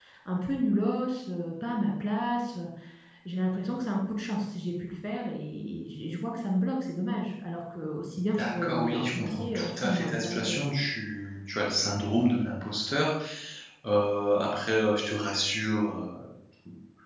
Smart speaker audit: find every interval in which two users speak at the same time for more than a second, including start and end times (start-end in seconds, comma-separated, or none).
8.4-10.6